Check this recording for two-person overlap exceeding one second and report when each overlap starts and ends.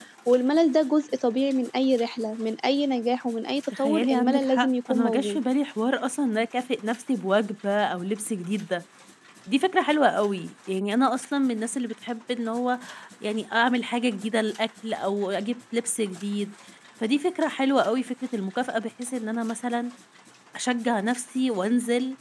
3.8-5.4

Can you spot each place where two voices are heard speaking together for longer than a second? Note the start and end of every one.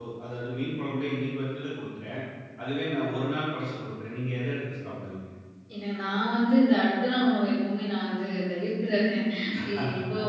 none

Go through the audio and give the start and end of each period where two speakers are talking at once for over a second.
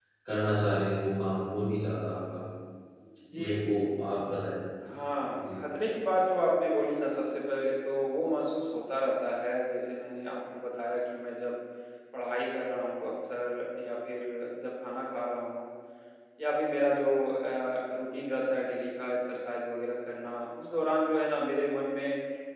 none

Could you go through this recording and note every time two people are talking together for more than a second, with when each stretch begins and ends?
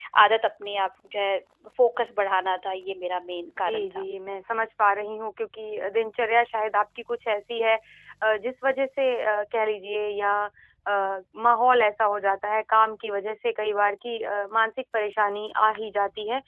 none

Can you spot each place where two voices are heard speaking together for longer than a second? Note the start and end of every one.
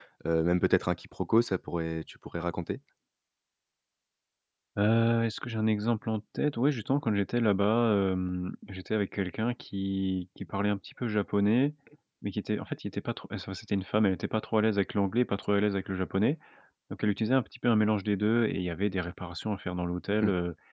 none

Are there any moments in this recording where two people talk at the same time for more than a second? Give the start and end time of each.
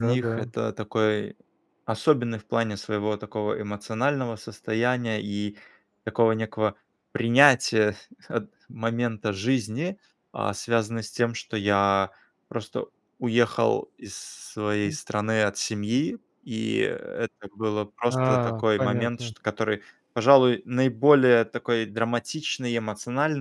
18.1-19.3

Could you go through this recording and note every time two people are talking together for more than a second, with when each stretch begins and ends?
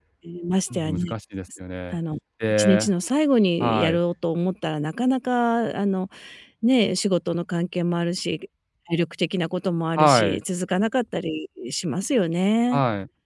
none

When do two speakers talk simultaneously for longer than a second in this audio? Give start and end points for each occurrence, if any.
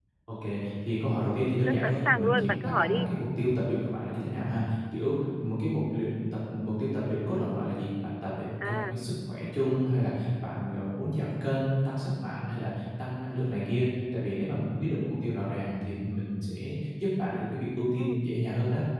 1.6-3.1

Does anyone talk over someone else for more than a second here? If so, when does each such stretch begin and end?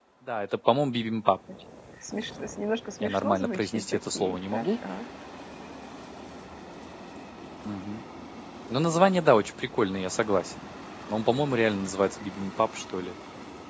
3.0-4.8

